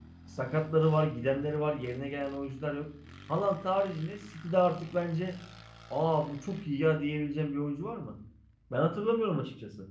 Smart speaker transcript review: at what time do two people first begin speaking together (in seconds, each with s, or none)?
none